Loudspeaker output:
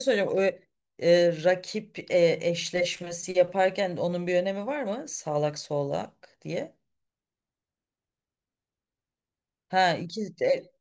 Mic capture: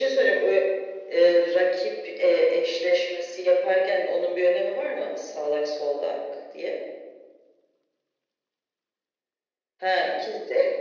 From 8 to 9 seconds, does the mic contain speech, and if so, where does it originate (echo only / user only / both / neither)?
neither